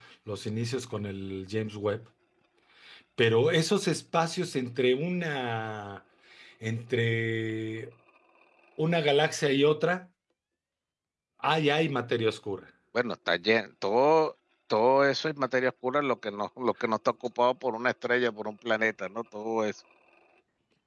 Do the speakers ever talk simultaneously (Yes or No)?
No